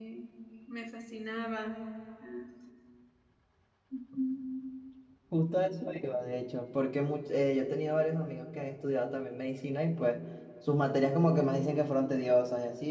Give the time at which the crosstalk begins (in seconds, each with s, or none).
none